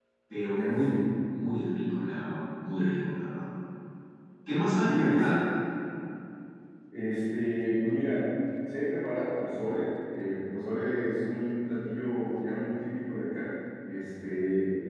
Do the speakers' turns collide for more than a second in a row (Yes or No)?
No